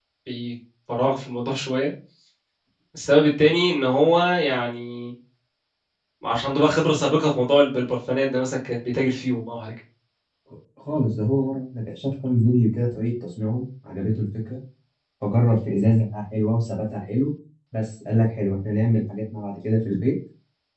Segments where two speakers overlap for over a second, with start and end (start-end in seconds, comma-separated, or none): none